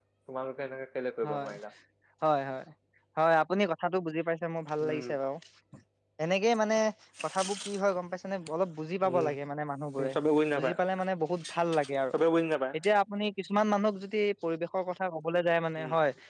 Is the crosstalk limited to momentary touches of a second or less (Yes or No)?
Yes